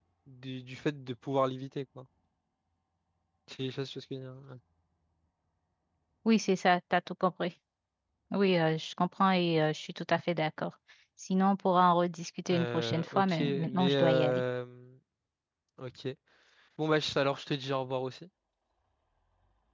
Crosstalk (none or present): present